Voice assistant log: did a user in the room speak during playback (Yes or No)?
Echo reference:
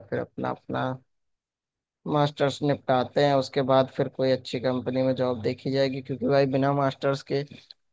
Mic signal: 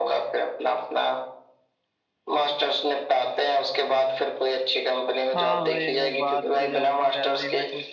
Yes